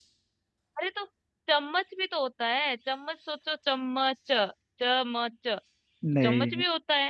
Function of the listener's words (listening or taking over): listening